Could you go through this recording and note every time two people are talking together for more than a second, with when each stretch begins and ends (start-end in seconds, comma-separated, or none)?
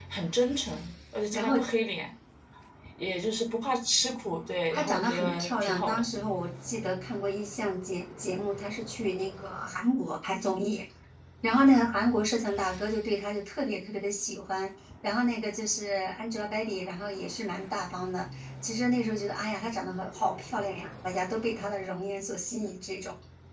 4.7-6.1